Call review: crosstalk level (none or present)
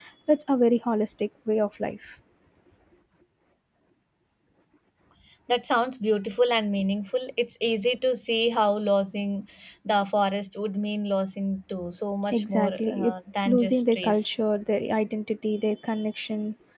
present